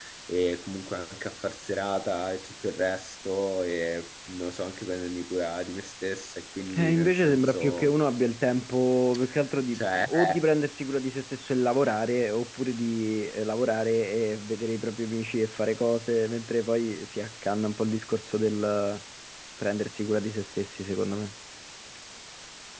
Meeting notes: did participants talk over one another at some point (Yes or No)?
Yes